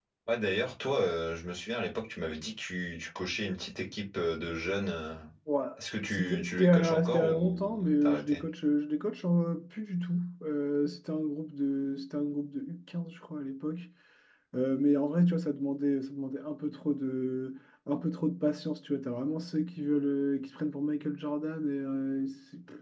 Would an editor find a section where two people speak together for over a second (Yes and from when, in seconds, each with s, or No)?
Yes, from 6.0 s